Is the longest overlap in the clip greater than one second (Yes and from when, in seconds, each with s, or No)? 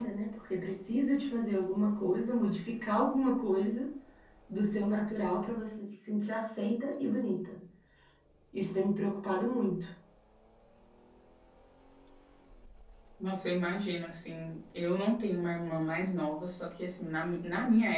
No